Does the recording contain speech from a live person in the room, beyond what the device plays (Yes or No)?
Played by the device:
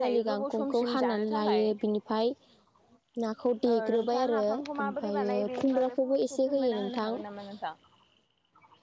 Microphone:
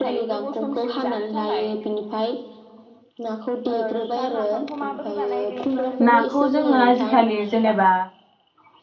Yes